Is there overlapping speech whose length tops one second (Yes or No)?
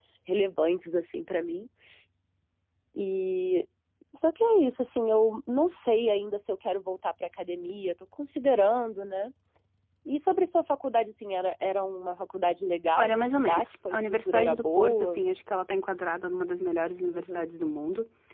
Yes